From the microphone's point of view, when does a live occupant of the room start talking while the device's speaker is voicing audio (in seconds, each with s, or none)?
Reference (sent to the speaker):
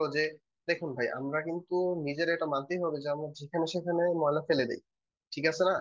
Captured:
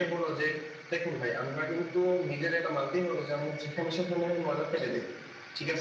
none